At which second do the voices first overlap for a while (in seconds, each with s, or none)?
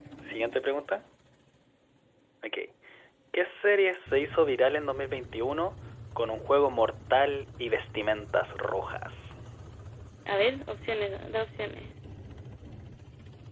none